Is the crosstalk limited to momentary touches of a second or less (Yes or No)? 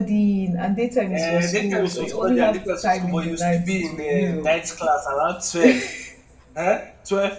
No